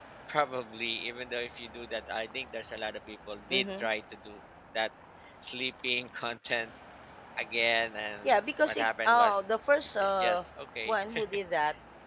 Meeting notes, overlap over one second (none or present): present